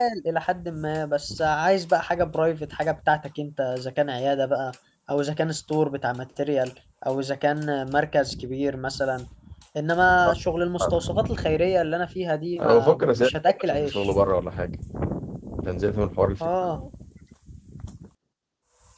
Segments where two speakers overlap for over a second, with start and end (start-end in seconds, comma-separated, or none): 12.6-14.1